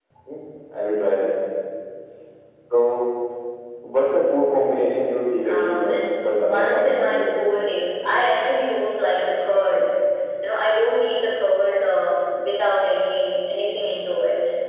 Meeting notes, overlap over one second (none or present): present